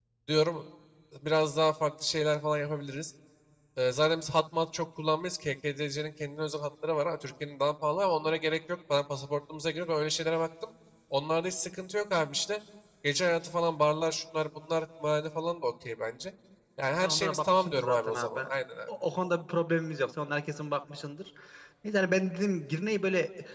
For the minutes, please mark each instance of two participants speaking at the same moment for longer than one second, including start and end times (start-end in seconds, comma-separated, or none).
17.0-18.5